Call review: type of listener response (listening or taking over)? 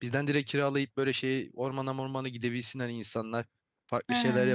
listening